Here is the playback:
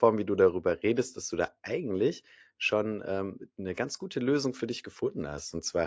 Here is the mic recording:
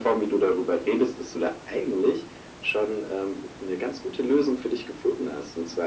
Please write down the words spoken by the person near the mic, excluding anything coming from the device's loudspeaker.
none

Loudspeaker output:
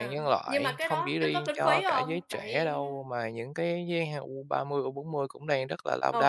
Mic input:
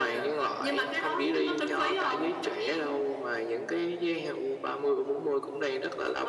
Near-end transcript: none

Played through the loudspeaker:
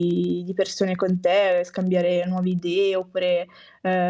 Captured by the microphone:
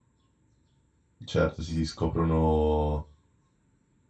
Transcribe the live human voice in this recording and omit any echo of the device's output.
E certo si si scoprono

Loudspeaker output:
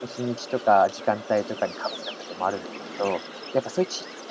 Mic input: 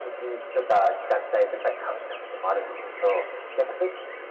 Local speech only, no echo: none

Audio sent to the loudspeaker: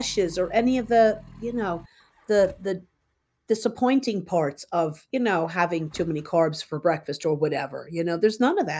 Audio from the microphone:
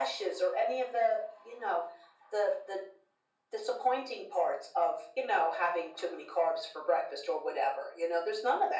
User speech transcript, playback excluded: none

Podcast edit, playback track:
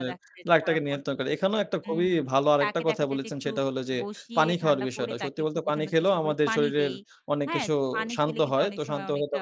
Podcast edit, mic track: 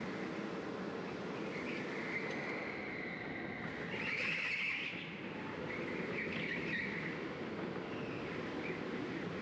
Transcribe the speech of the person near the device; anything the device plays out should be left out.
none

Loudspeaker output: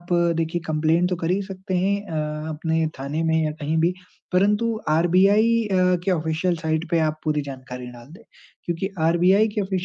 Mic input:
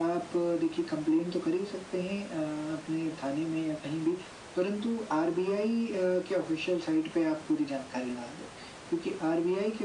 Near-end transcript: none

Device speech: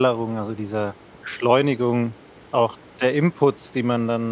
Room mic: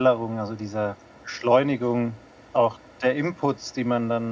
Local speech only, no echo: none

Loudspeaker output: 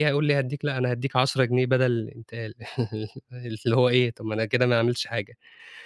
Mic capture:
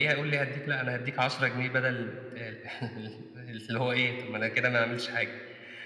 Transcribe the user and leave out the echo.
none

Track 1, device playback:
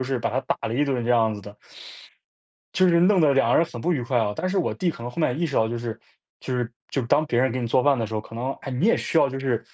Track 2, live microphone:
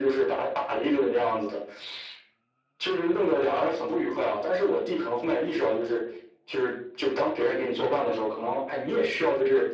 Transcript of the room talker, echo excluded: none

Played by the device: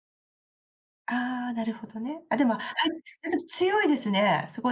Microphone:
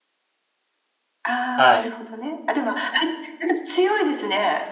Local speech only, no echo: はい。

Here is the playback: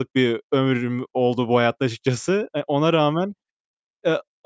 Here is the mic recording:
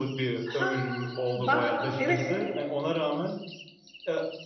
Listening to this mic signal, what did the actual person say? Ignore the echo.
Hah! Bak, evet.

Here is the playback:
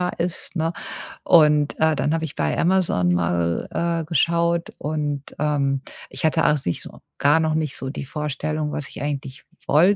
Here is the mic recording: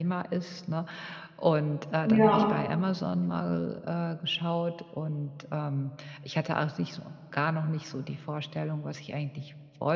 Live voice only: Ja.

